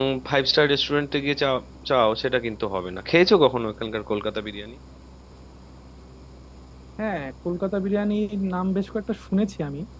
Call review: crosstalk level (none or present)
none